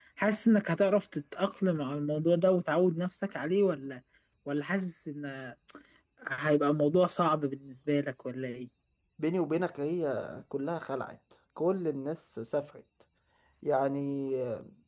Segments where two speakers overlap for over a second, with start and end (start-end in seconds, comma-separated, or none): none